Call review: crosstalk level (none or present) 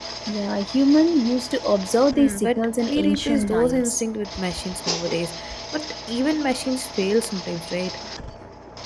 present